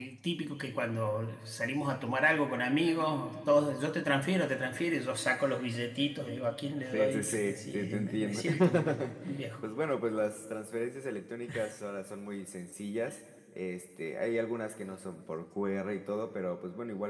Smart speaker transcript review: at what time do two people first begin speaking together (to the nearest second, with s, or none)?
7 s